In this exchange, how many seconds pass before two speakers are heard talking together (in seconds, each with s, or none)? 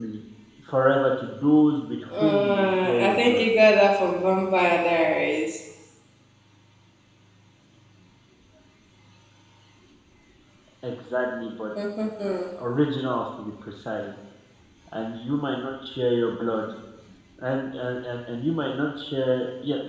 2.1 s